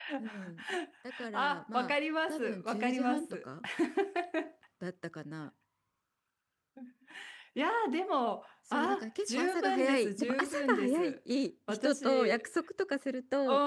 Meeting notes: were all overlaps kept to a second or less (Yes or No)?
No